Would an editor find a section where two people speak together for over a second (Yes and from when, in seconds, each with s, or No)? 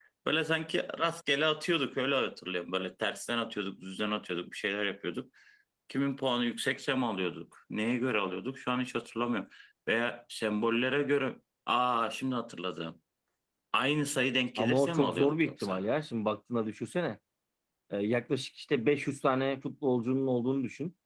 Yes, from 14.6 s